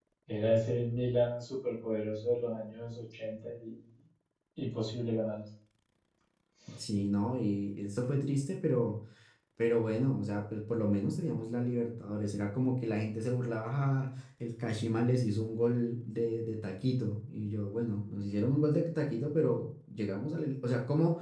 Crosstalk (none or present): none